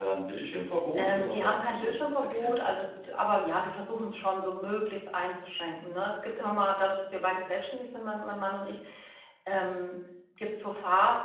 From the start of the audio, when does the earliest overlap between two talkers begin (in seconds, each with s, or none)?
0.9 s